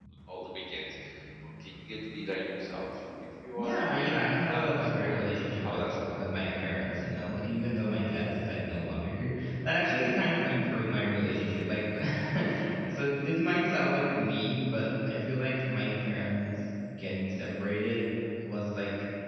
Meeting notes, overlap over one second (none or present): present